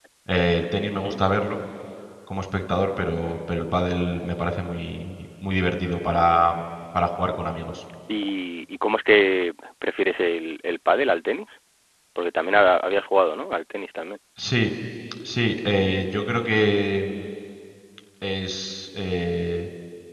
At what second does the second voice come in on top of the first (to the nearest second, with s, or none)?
none